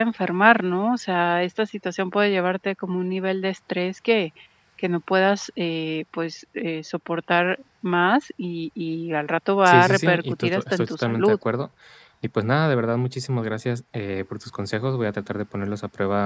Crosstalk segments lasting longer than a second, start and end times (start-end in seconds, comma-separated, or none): 9.7-11.4